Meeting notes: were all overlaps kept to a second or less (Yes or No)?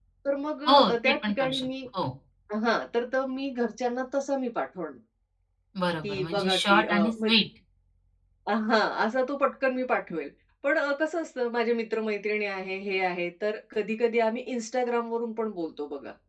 No